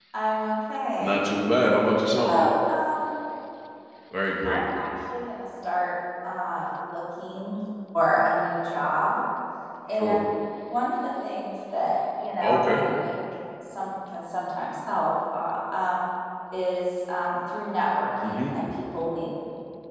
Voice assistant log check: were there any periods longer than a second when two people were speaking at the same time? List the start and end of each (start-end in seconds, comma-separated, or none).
none